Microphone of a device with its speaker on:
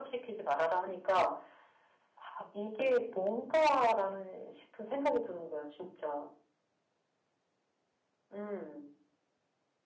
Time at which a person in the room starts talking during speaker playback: none

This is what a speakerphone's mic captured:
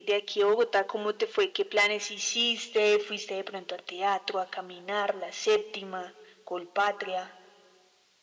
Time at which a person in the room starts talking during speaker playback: none

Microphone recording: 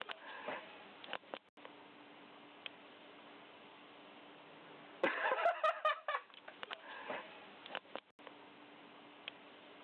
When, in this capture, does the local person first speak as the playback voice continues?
none

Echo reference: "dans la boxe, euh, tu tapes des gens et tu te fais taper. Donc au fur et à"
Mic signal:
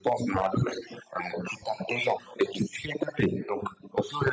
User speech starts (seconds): none

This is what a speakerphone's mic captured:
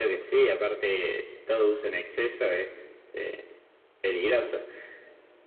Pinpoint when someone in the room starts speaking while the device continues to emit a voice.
none

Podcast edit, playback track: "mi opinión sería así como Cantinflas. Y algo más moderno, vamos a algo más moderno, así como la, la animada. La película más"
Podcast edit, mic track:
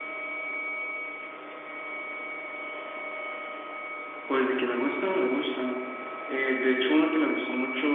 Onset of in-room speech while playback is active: 4.2 s

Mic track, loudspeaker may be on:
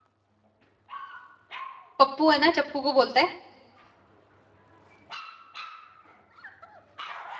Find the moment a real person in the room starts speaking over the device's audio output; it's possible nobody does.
2.0 s

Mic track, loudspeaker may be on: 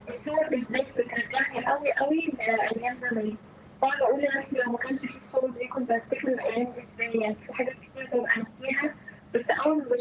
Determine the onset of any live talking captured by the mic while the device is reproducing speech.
none

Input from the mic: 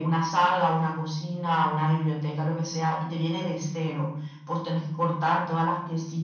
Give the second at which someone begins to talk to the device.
none

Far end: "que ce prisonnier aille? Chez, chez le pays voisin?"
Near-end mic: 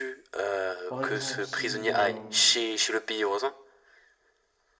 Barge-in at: 0.9 s

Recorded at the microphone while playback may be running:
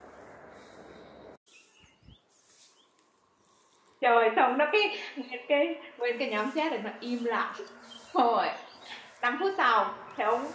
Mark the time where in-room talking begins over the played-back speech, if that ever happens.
4.0 s

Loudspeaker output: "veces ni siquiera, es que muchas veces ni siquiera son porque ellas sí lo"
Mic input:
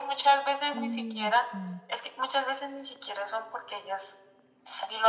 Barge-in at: 0.7 s

